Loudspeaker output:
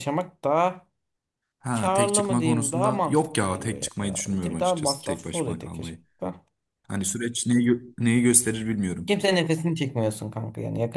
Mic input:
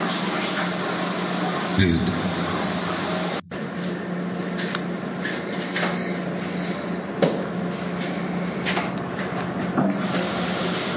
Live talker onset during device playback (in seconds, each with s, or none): 1.8 s